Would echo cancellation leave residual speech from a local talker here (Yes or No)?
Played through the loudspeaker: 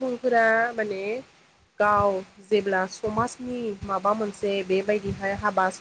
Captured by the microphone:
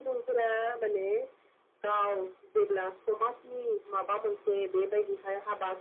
No